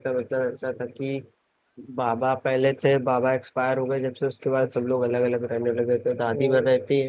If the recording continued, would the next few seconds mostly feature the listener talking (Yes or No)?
No